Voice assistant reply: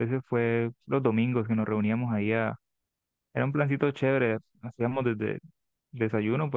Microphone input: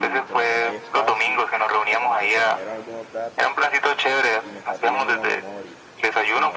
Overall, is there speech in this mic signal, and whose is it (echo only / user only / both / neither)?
both